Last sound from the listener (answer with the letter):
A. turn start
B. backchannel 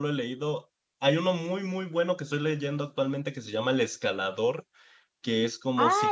A